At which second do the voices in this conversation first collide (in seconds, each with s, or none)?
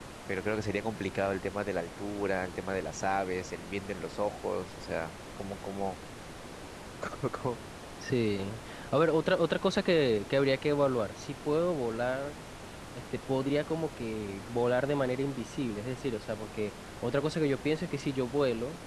none